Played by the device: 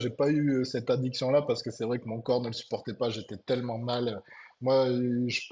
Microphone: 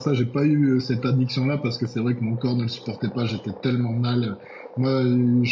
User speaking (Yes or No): No